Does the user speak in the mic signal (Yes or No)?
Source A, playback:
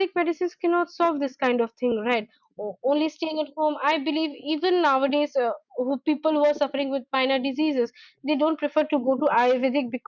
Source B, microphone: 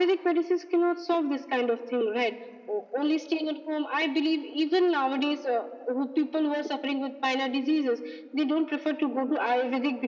No